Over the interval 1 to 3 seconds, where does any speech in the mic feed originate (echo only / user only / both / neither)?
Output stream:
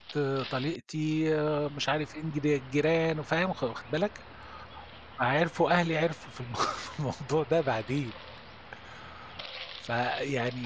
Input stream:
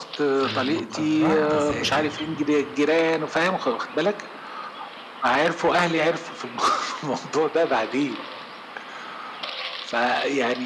both